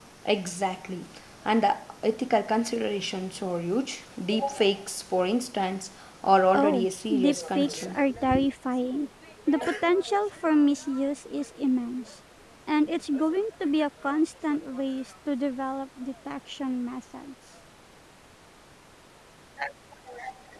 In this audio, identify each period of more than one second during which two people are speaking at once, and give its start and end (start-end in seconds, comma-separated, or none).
6.5-8.0